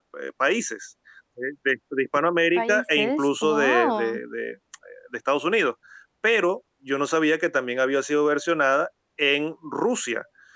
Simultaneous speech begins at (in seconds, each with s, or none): 2.5 s